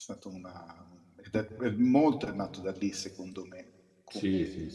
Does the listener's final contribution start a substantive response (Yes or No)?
Yes